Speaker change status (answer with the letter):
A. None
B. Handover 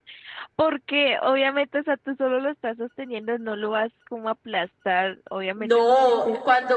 B